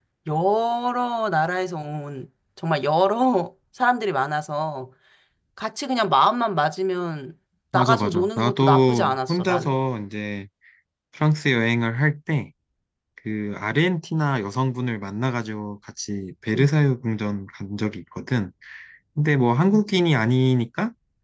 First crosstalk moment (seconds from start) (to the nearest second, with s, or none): 8 s